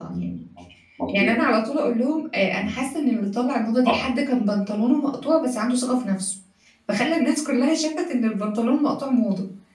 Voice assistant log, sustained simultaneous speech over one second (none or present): none